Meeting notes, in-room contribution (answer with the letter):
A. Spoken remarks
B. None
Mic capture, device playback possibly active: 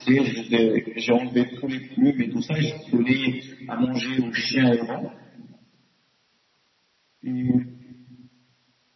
B